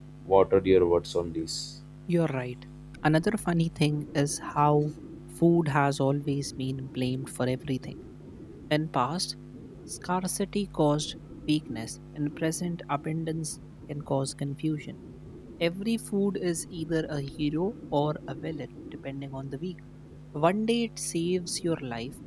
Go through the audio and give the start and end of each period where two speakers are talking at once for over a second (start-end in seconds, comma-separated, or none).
none